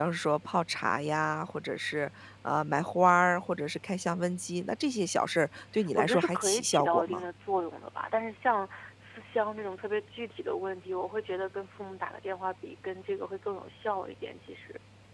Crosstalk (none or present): present